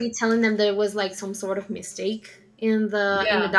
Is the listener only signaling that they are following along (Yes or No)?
Yes